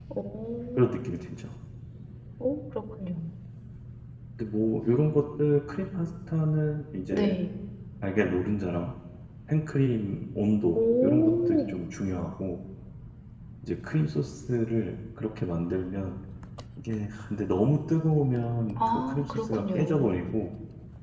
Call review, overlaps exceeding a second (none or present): present